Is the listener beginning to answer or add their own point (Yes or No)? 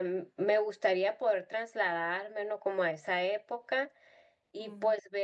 No